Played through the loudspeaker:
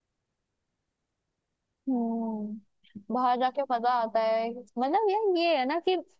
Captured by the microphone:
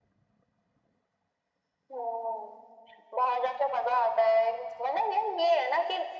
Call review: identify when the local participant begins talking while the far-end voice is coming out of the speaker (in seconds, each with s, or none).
none